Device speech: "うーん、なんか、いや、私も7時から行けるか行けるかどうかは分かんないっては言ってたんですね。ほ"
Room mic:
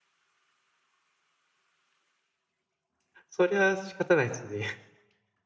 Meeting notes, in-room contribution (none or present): present